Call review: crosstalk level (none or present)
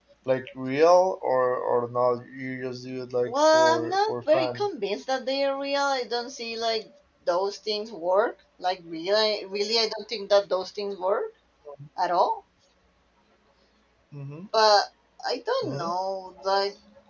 present